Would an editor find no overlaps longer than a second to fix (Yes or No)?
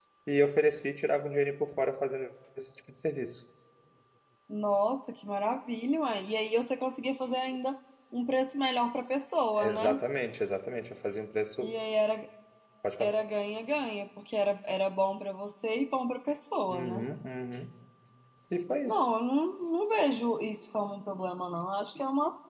Yes